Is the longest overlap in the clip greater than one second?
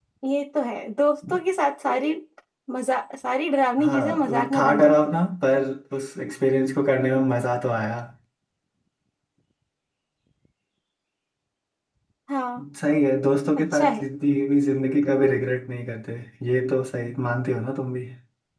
Yes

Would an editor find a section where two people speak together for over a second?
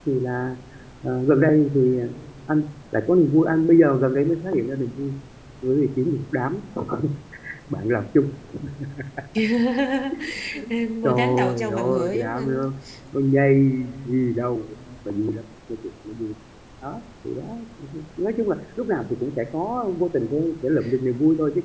Yes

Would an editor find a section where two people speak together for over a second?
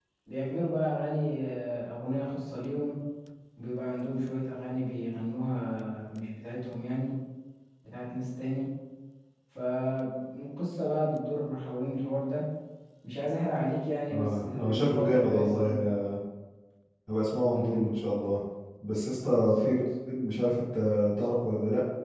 Yes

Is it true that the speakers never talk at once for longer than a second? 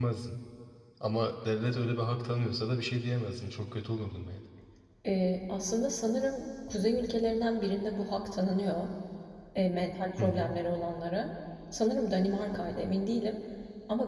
Yes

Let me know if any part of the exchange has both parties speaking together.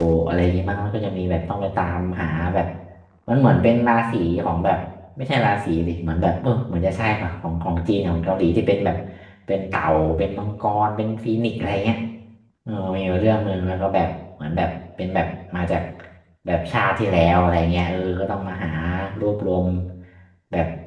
No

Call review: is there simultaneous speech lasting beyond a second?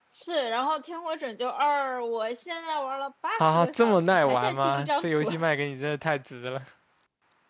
Yes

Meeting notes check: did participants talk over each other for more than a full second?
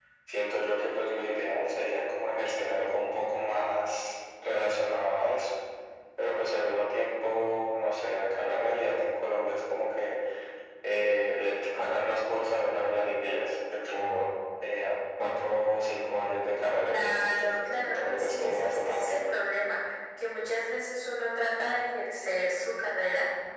Yes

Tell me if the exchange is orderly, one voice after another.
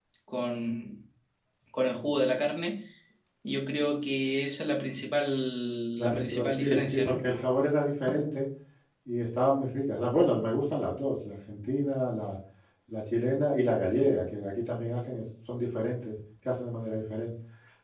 No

